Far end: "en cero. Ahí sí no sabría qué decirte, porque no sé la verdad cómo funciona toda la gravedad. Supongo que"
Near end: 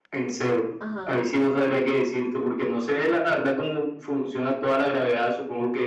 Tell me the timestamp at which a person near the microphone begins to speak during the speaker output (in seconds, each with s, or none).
0.8 s